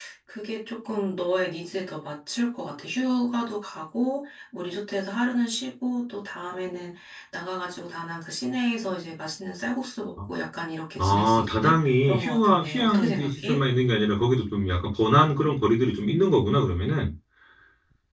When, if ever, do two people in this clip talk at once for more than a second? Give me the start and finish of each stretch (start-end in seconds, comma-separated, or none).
11.0-13.6